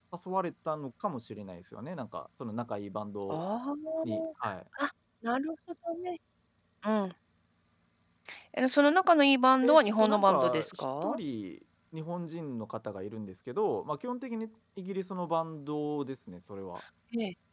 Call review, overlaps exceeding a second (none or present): present